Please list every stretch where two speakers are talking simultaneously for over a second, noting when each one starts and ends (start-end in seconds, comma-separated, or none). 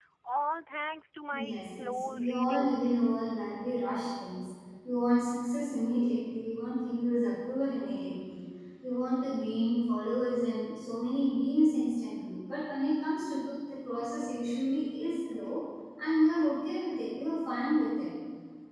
1.5-2.7